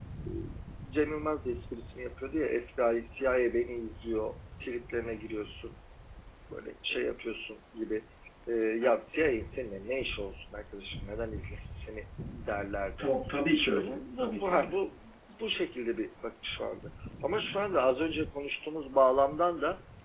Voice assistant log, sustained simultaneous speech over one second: present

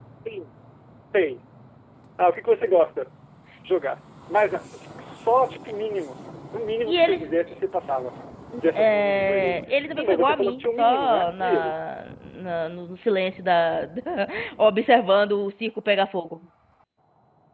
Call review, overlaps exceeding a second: present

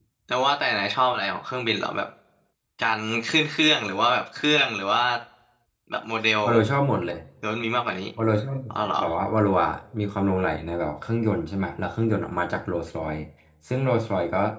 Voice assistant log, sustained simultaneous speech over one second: none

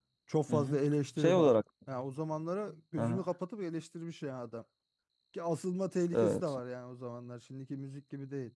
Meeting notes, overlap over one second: none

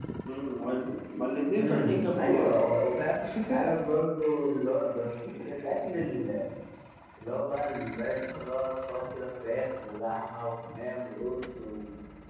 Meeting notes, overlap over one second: present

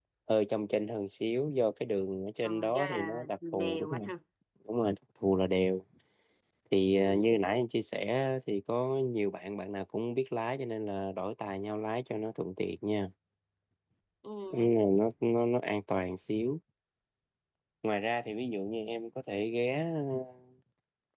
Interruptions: present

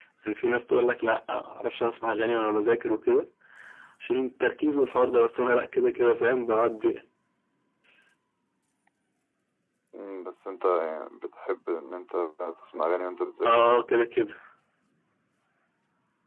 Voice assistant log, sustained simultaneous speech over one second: none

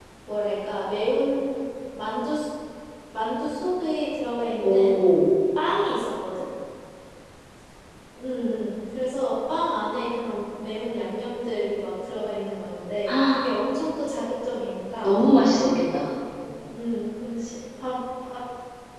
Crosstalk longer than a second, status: none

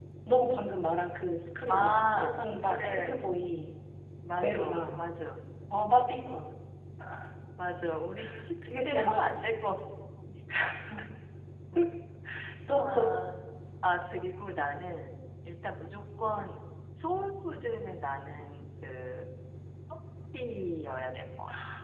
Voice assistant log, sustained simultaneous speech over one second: present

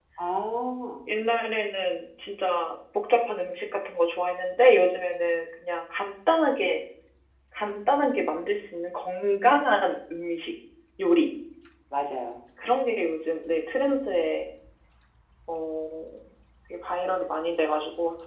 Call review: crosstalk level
none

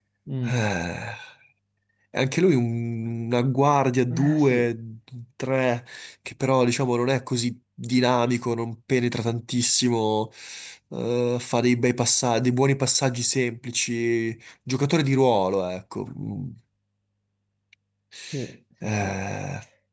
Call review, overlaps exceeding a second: none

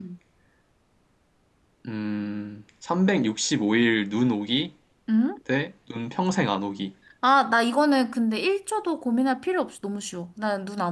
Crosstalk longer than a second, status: none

